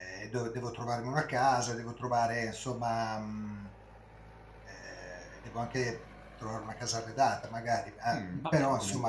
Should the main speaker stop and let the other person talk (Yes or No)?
Yes